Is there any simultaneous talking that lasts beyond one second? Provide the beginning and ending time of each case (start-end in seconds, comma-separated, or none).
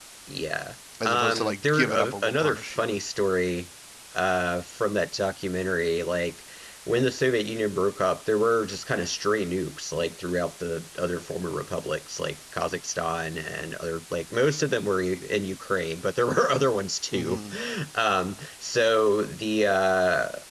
1.0-2.9